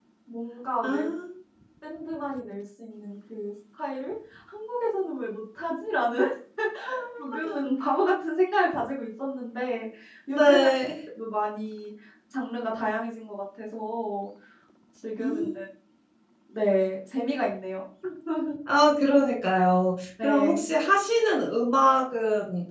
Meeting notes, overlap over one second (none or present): none